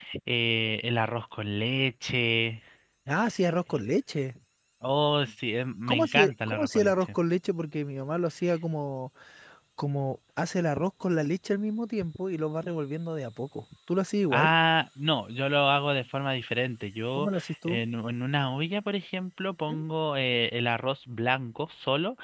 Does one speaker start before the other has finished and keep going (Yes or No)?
Yes